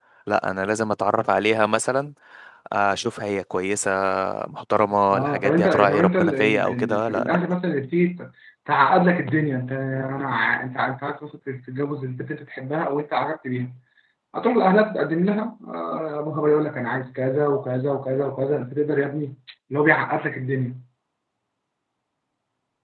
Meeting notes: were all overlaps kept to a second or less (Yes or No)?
No